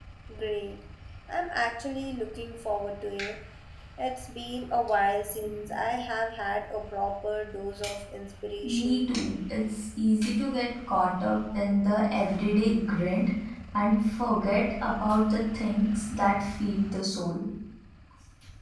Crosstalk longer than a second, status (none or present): none